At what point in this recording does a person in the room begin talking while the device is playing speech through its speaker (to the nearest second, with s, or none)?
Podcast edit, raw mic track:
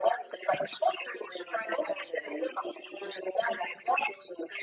none